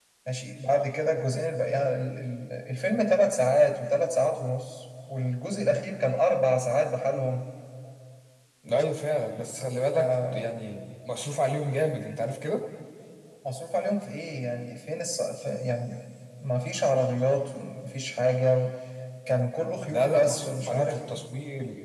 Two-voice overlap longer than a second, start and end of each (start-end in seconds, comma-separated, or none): 19.9-21.2